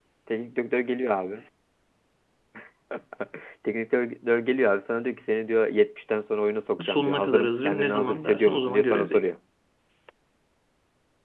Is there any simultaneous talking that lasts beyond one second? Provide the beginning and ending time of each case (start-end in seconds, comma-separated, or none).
6.8-9.2